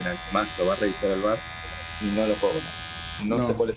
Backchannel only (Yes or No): Yes